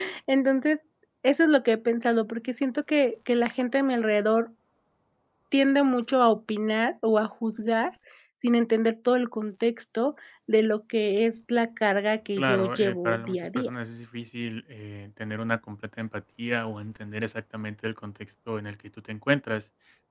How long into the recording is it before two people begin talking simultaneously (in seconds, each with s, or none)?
12.4 s